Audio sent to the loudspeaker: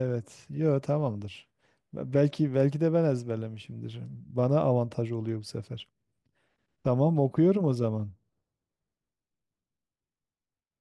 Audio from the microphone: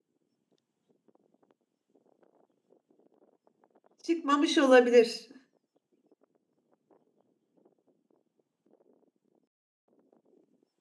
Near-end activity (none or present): present